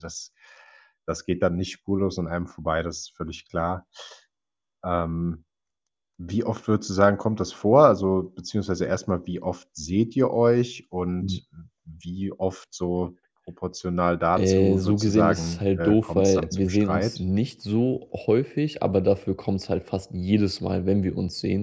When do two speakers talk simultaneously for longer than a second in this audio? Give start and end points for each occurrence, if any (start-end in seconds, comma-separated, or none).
14.4-17.2